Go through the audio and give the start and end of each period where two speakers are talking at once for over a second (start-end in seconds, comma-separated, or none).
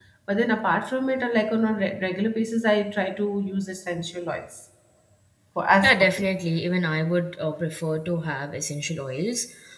none